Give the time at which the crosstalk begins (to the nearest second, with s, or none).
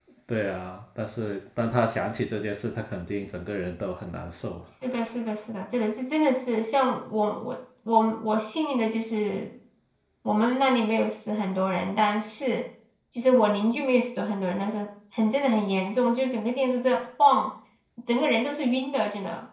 none